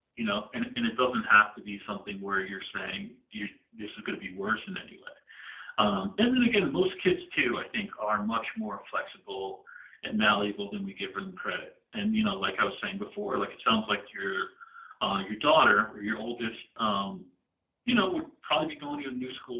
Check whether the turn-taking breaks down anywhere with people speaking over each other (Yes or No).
No